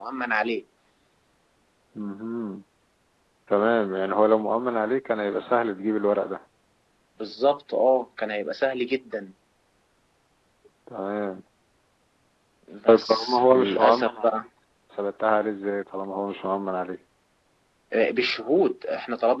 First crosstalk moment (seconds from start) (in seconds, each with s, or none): 12.9 s